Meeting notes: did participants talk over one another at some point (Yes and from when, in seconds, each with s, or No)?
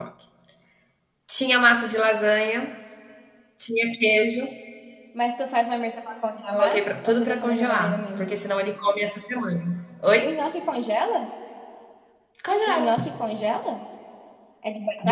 Yes, from 6.6 s